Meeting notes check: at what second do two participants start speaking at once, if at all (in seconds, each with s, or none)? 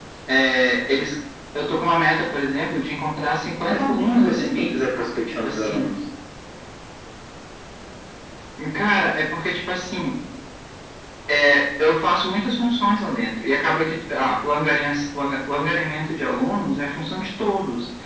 3.6 s